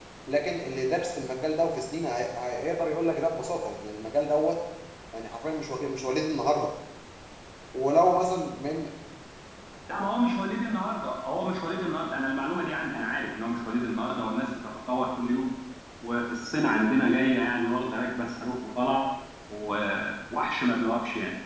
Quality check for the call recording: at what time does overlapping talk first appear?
none

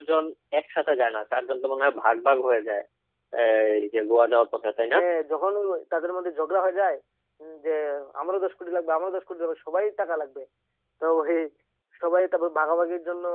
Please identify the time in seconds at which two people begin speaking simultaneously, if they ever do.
none

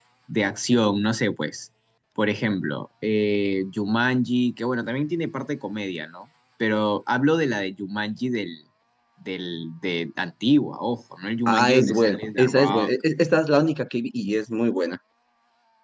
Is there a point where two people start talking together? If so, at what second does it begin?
11.5 s

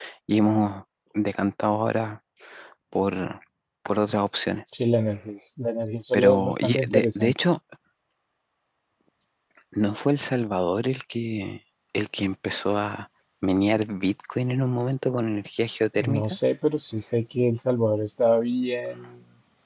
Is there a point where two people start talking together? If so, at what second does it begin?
6.1 s

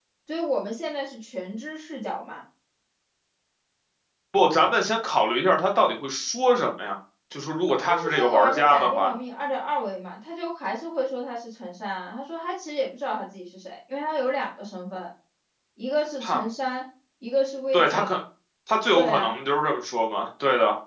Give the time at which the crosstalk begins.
7.8 s

